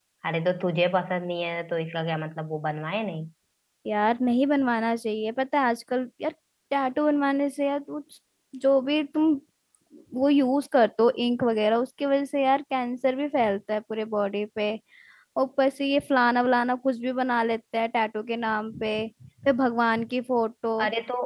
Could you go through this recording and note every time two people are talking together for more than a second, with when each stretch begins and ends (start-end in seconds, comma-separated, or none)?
none